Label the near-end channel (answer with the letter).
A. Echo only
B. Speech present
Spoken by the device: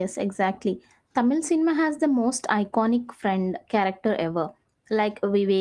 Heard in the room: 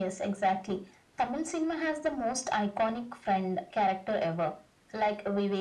A